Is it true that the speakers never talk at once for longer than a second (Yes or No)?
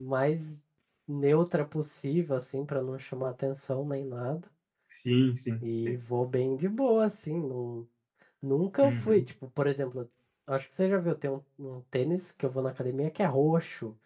Yes